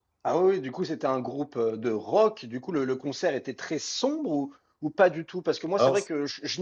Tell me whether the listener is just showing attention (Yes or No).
Yes